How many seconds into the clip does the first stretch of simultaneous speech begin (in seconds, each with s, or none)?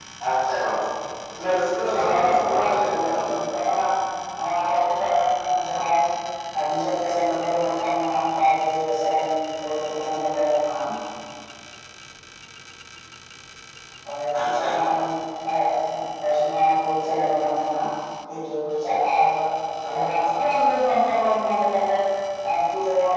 2.1 s